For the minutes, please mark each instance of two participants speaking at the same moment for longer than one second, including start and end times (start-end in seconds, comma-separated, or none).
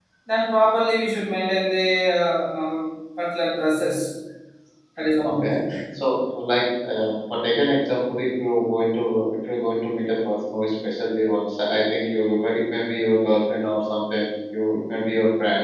none